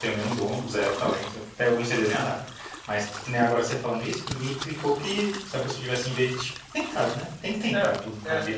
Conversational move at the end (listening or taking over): taking over